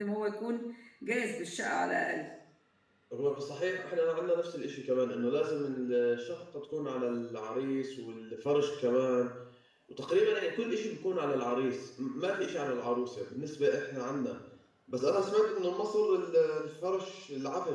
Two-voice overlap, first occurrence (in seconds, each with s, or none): none